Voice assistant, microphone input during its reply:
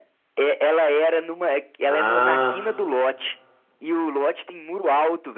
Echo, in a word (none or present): present